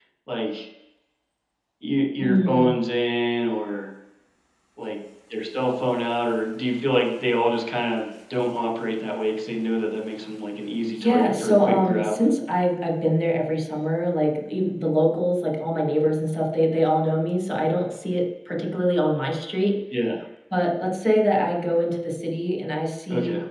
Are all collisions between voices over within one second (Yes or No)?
No